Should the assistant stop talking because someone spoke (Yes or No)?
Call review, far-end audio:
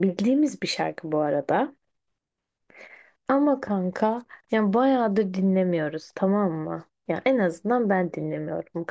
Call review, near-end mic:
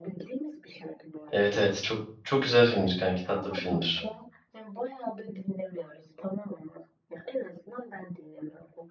Yes